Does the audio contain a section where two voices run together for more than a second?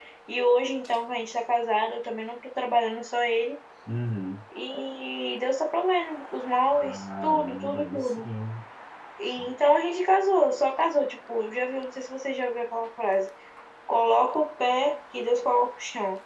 Yes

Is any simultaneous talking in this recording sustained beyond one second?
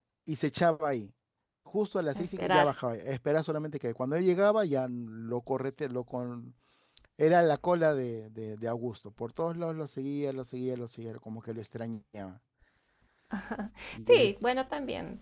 No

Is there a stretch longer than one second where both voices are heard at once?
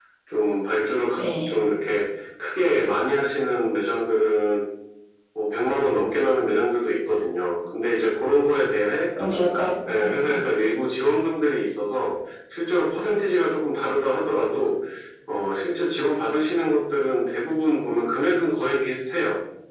No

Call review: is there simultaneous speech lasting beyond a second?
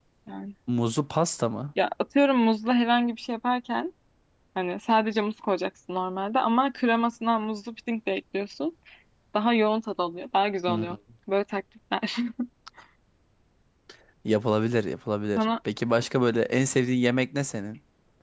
No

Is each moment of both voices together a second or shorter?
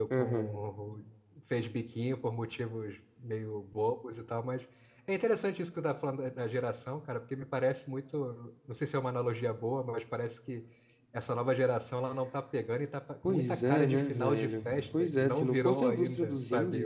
No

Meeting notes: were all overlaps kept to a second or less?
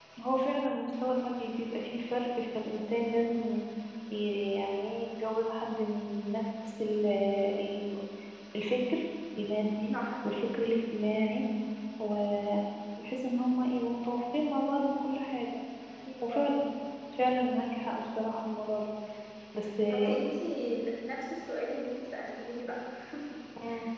Yes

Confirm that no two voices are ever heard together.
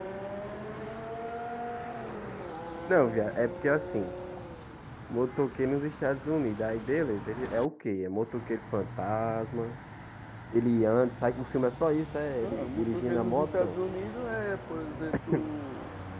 No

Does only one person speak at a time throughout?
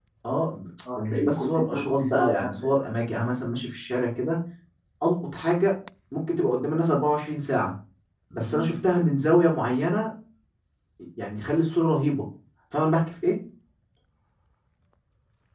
No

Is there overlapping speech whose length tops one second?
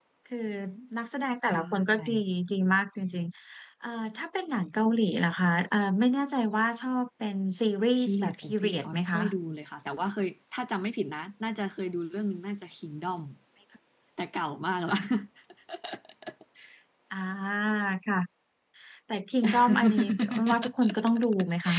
Yes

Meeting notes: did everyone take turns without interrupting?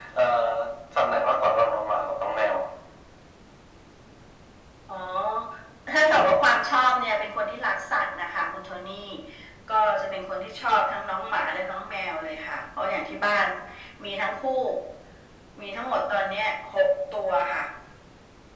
Yes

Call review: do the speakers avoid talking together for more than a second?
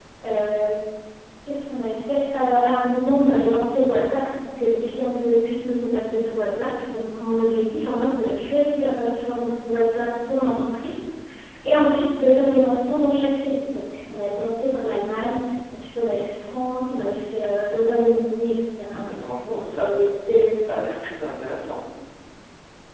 Yes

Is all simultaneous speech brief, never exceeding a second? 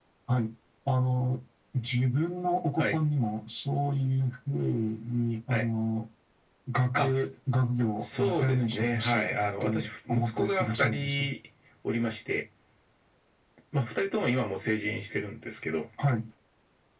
No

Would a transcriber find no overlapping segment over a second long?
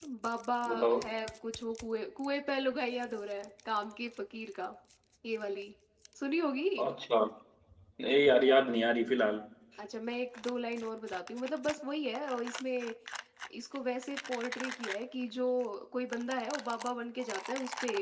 Yes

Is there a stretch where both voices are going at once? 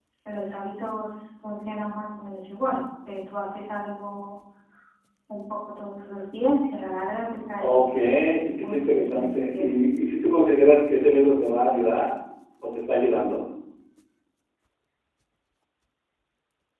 Yes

